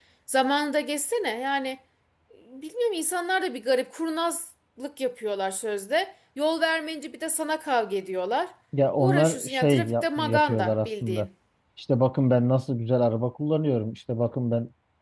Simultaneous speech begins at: 9 s

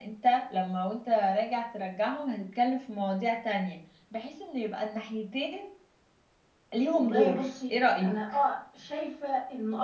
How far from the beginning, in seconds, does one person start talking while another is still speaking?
7 s

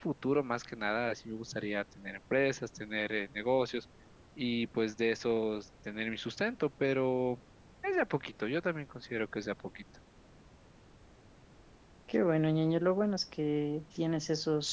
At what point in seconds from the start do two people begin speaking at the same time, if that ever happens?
none

